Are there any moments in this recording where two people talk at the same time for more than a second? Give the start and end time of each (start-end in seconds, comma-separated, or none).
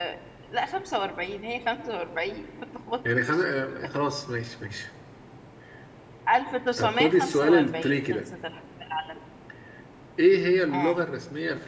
6.8-8.2